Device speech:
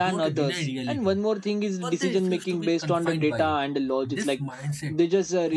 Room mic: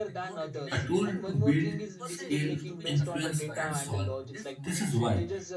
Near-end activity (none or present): present